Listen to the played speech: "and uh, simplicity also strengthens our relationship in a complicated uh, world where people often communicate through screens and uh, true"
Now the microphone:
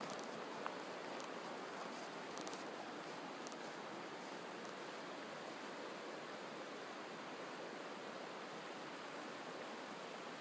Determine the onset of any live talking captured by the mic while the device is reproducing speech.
none

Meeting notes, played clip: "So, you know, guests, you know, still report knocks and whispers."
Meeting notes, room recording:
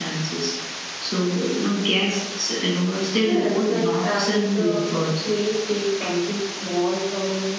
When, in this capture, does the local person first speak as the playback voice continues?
3.2 s

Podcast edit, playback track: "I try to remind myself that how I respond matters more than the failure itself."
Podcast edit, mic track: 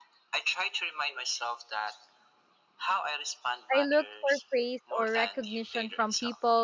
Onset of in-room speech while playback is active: 3.7 s

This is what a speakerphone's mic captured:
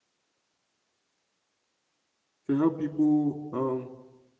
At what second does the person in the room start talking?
2.5 s

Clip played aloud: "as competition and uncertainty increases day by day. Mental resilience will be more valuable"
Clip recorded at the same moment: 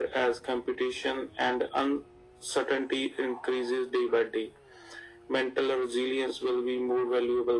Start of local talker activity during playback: none

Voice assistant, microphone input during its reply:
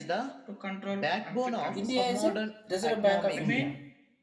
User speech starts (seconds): 1.7 s

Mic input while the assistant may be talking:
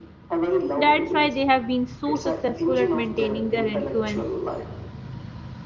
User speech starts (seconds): 0.8 s

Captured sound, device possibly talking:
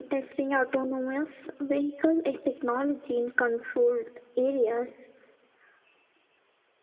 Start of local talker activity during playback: none

